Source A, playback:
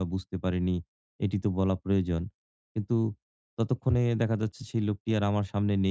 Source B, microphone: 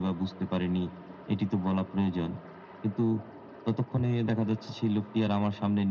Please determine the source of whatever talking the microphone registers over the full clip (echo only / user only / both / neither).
echo only